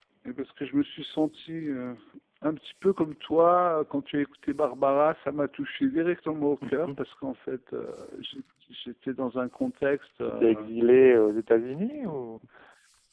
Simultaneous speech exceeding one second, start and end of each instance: none

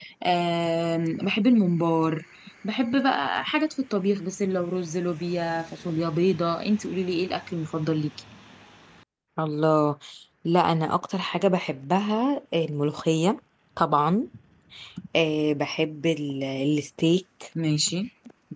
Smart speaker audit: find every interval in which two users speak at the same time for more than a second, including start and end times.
none

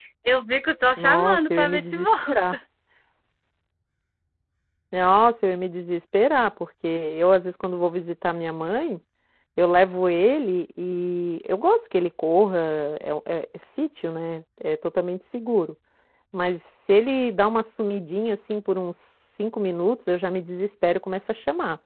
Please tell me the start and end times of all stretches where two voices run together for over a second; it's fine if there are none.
1.0-2.6

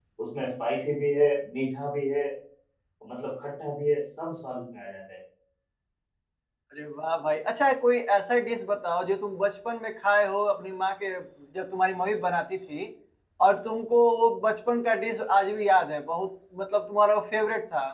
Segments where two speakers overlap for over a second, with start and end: none

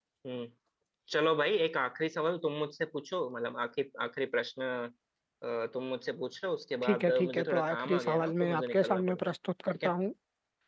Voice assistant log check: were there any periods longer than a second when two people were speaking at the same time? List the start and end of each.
6.8-9.3

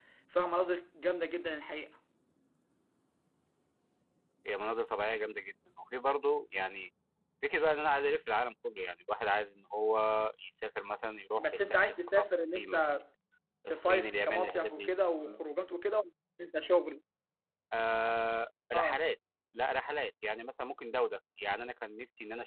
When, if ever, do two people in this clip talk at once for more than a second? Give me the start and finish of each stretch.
11.4-12.8, 13.7-14.9

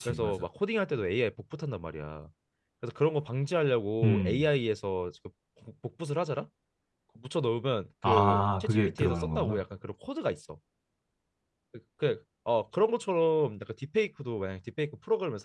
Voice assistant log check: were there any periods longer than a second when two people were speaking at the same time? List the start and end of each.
8.1-9.6

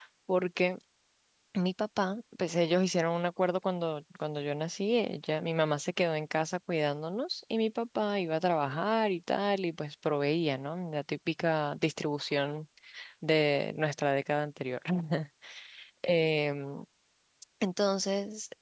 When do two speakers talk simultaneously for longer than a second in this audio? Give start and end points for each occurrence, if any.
none

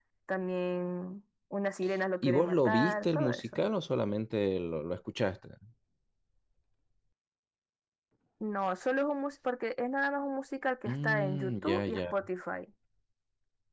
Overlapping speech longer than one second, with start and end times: 2.2-3.5, 10.8-12.1

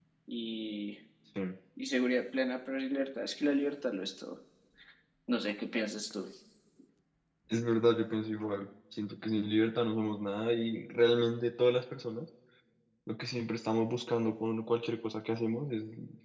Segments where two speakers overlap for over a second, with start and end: none

